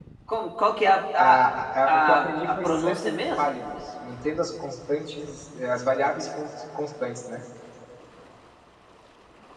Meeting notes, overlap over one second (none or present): present